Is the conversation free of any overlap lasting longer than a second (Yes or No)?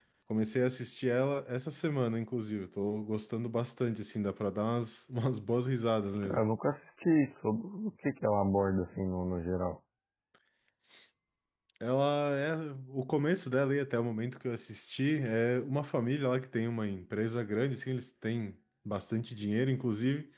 Yes